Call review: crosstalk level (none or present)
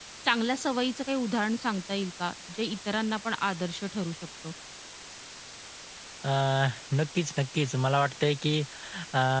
none